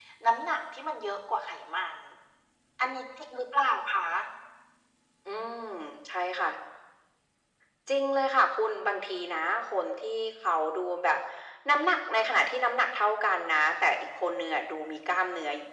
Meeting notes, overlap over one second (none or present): none